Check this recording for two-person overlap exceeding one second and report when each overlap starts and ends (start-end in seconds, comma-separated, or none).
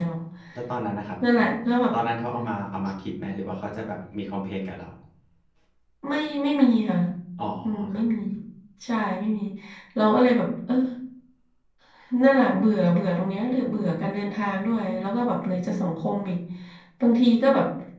none